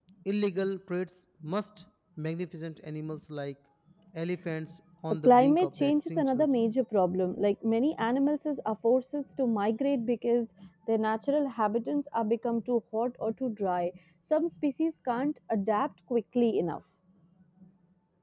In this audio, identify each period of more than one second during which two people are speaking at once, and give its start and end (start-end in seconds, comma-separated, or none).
5.2-6.5